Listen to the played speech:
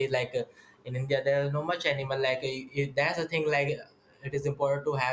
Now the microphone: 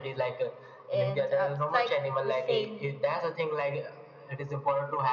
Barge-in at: 0.9 s

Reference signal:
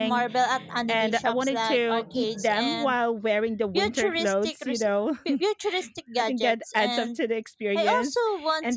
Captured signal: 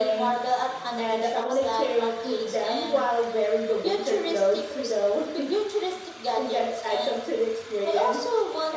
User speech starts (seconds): none

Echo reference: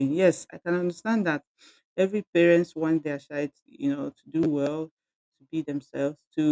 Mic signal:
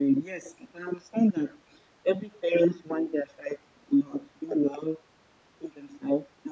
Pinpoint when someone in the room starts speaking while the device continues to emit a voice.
none

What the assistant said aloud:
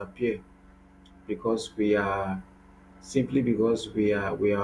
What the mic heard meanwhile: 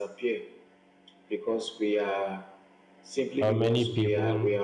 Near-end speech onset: 3.4 s

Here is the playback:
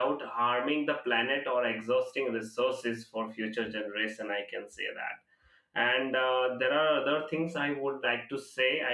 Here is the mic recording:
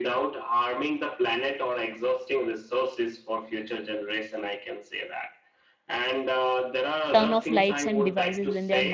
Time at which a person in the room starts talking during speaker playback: 7.1 s

